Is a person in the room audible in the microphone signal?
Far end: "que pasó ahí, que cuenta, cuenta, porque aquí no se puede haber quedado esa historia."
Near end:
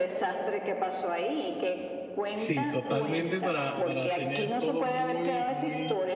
Yes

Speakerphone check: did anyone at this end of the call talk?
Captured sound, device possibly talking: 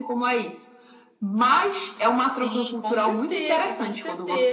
Yes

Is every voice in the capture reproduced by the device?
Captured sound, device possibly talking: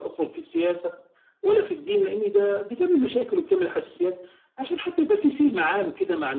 Yes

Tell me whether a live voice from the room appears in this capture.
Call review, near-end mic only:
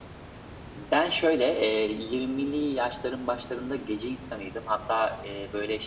Yes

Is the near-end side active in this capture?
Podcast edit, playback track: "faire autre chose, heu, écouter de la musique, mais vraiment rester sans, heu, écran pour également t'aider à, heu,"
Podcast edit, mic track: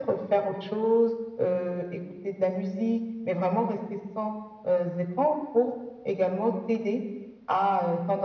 No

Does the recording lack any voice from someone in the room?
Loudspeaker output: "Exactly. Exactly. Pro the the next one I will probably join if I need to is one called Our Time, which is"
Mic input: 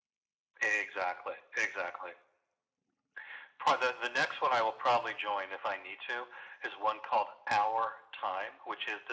Yes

